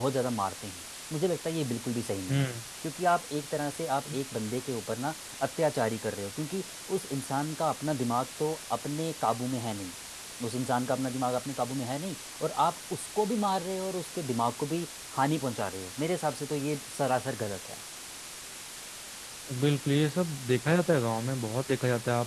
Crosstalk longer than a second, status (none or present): none